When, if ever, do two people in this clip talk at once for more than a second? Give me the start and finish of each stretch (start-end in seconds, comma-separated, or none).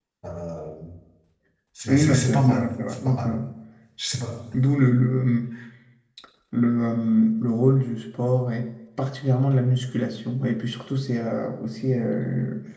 1.9-3.3